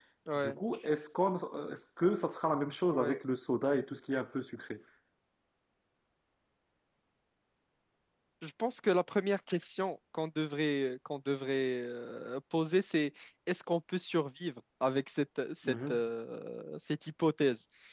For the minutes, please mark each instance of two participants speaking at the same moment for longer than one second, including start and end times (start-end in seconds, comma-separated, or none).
none